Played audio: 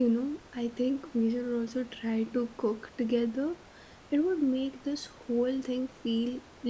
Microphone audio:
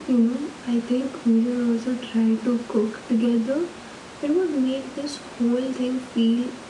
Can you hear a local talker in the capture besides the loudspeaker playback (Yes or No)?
No